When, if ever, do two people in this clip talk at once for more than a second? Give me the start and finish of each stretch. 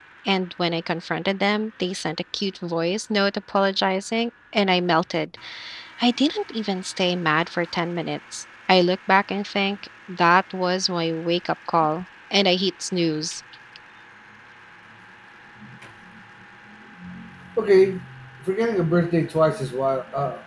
none

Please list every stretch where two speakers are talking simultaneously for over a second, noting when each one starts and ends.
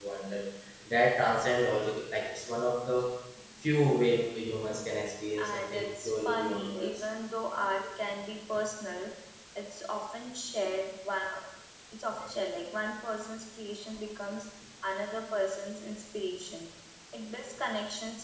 5.4-7.0

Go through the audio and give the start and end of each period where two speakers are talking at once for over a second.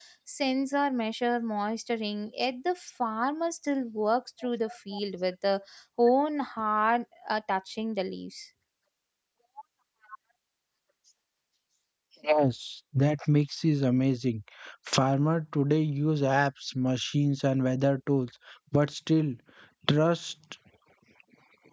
none

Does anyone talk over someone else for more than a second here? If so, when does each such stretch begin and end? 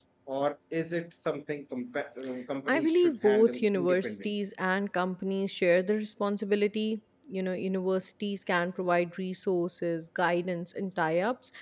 2.7-4.3

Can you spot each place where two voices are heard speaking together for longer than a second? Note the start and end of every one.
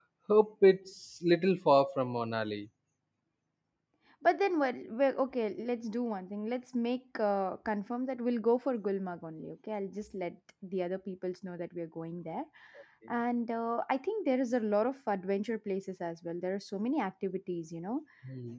none

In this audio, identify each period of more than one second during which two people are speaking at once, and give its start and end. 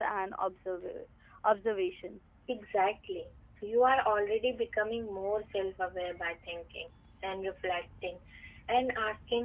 none

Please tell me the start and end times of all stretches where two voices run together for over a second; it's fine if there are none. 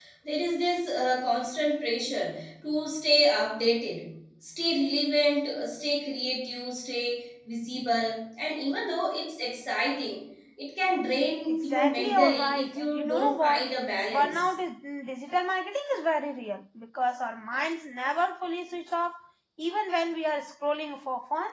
11.5-13.6

